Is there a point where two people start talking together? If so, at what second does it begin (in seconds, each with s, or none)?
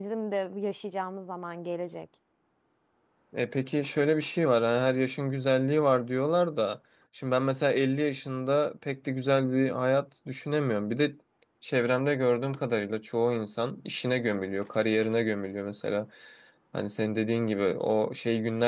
none